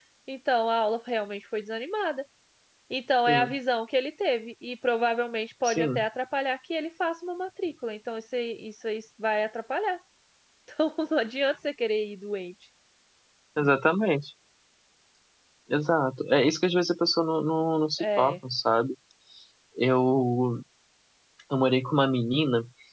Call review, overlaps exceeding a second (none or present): none